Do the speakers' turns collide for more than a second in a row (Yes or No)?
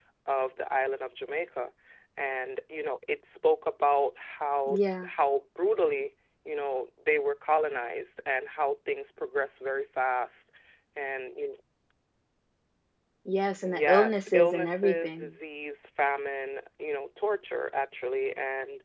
Yes